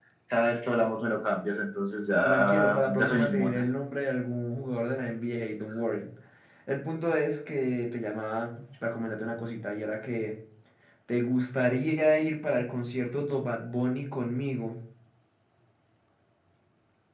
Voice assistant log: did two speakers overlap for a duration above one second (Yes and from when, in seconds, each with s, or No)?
Yes, from 2.2 s